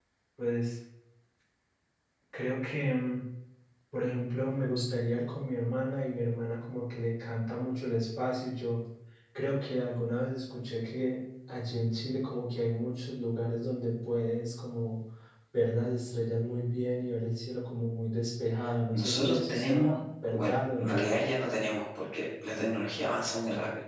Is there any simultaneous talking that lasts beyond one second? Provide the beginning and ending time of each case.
18.9-21.0

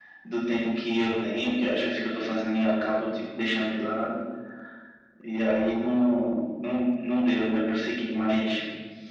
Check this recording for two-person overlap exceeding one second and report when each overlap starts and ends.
none

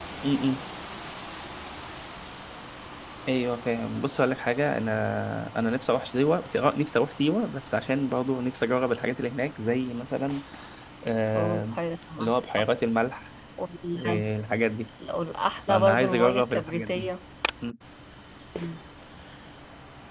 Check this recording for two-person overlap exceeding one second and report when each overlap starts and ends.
15.7-17.1

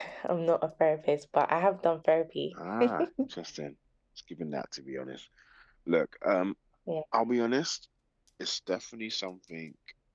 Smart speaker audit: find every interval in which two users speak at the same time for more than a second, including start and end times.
none

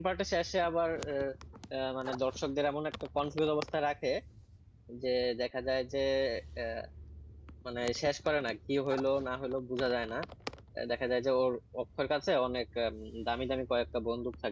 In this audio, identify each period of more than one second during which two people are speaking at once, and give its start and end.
none

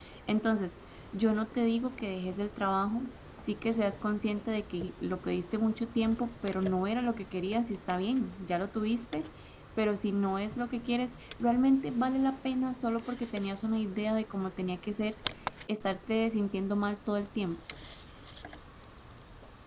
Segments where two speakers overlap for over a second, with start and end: none

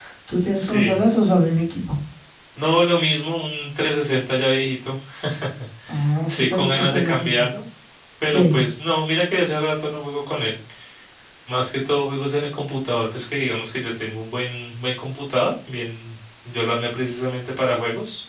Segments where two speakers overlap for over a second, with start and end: 6.3-7.5

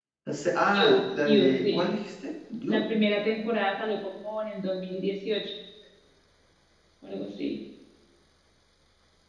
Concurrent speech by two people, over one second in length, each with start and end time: 0.7-1.9

